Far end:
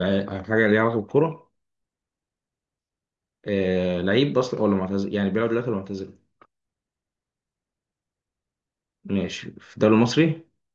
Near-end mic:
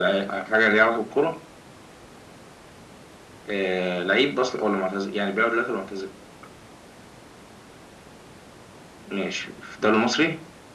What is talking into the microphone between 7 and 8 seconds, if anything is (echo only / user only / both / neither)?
neither